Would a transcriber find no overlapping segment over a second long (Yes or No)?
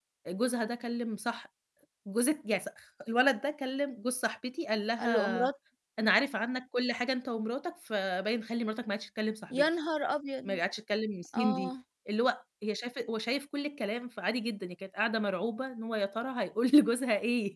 Yes